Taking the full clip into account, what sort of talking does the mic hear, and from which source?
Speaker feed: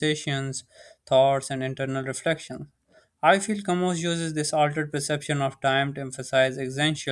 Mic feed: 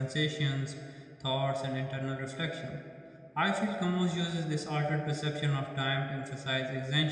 echo only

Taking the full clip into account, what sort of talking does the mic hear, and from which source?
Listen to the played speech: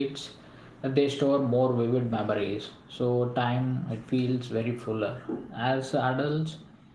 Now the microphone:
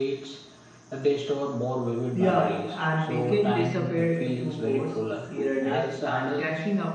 both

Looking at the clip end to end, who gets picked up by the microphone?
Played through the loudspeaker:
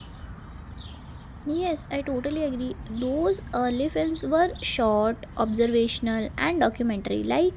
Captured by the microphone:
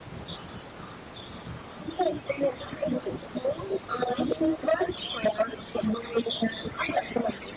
echo only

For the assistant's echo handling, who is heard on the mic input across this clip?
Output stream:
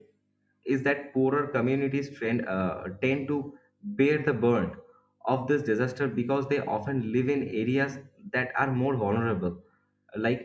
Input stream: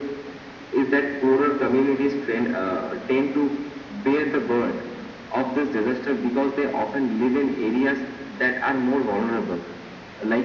echo only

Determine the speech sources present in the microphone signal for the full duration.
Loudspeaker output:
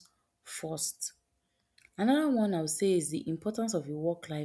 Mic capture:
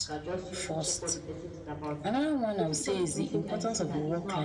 both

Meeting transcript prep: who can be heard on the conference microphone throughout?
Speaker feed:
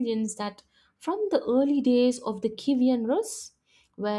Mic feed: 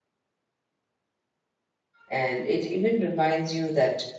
user only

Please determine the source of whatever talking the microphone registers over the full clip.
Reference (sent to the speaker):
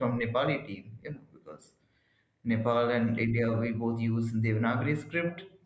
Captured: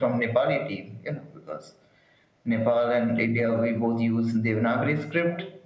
echo only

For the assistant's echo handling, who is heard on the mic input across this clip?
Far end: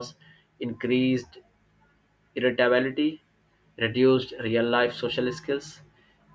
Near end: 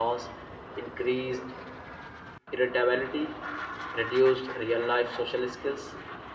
echo only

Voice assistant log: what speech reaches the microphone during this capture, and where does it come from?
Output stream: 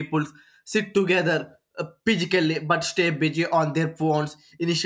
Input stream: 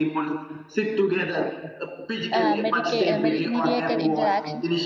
both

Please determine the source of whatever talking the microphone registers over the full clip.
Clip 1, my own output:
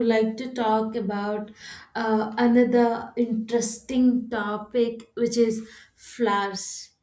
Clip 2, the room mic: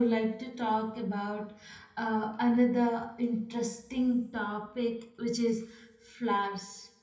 echo only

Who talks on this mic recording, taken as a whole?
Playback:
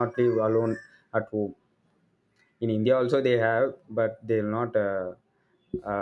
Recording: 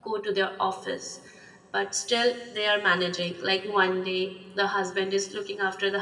user only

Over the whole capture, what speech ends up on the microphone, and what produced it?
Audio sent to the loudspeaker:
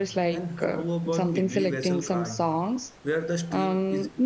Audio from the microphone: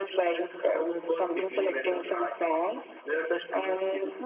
echo only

